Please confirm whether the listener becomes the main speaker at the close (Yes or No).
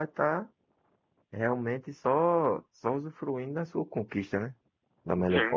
Yes